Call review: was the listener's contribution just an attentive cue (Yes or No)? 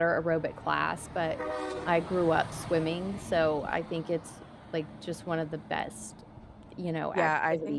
No